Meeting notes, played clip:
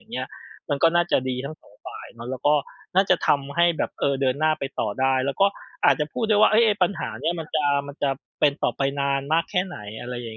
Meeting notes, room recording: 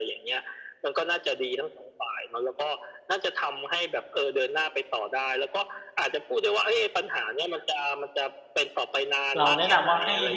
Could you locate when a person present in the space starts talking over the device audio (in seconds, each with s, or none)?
9.4 s